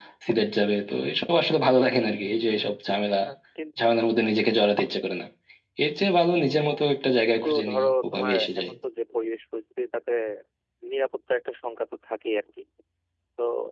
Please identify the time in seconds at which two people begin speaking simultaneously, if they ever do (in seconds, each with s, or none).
7.3 s